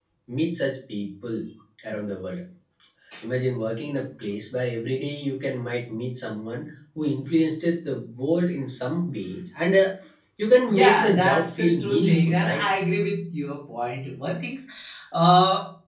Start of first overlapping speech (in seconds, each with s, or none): 10.7 s